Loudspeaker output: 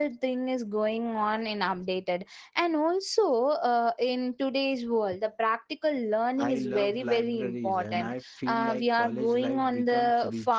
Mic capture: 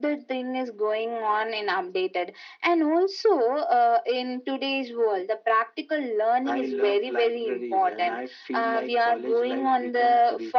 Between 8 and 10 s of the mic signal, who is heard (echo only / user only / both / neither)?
echo only